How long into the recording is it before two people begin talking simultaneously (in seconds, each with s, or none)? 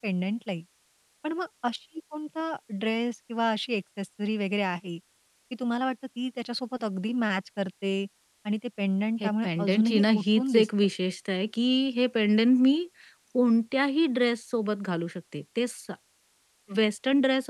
9.2 s